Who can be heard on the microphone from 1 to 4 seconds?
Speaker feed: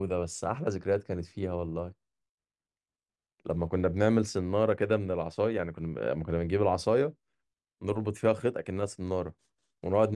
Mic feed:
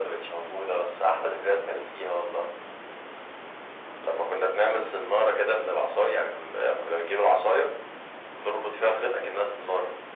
echo only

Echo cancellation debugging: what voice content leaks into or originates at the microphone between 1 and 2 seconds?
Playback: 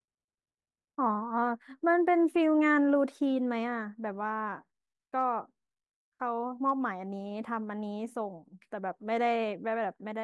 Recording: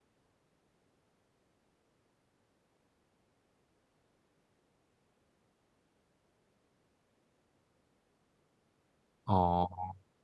neither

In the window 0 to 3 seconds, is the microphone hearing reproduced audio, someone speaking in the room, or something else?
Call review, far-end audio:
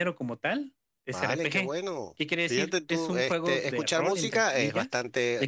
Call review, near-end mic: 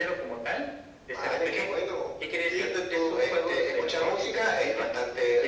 echo only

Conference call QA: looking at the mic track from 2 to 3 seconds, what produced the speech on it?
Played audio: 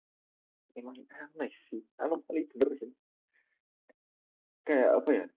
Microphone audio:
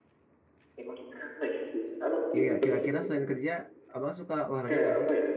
both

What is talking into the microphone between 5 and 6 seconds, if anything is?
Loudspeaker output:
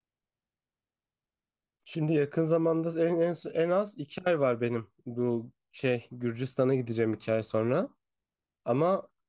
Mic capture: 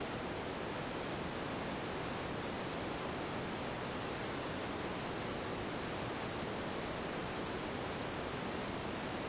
neither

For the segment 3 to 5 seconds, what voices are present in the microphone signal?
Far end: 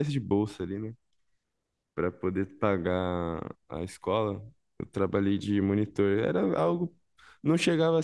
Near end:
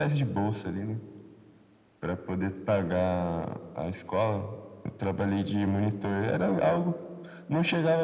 echo only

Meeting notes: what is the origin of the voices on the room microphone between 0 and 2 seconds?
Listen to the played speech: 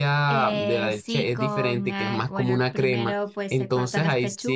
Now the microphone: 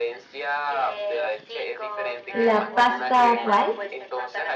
echo only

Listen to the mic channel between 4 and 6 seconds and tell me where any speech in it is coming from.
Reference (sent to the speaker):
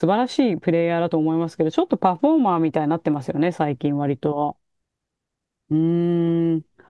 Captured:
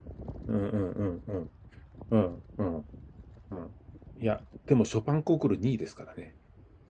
user only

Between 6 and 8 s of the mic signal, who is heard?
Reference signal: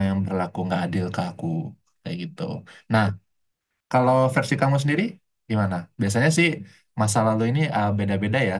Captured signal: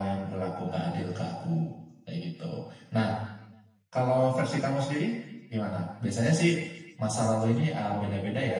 echo only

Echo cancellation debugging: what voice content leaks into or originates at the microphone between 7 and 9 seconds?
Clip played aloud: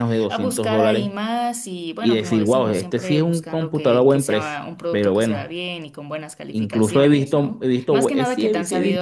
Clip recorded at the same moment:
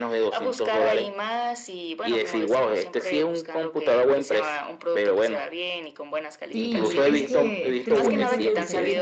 both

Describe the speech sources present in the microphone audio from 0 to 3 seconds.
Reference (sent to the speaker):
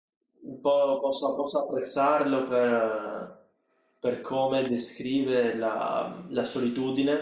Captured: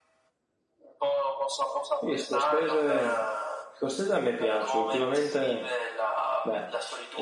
both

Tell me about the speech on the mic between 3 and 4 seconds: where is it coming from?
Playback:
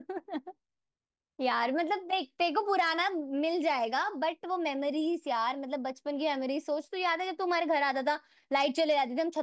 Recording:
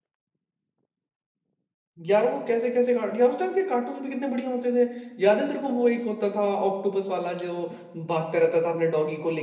user only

